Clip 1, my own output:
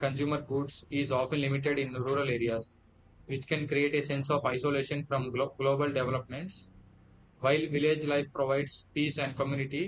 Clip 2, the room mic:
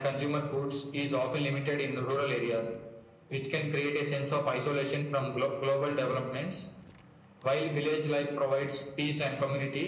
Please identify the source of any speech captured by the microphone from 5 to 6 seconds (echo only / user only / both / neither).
echo only